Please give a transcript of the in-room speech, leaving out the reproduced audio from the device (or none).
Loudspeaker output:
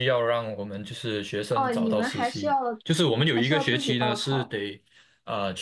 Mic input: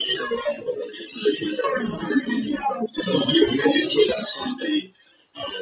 嗯